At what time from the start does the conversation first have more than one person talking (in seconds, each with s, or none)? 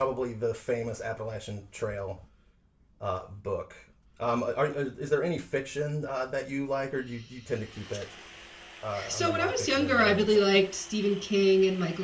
9.1 s